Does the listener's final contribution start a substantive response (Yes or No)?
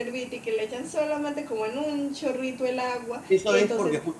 Yes